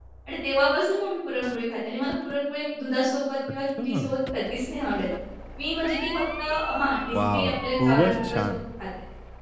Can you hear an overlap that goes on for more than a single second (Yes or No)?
Yes